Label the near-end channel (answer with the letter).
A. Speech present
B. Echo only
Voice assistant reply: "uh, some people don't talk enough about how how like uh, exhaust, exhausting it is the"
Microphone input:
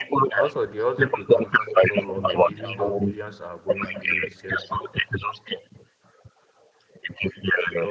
A